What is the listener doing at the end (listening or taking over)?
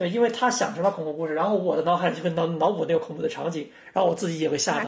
taking over